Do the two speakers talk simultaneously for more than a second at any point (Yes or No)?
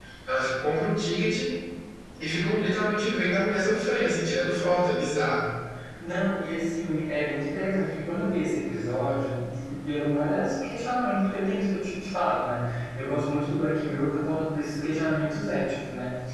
No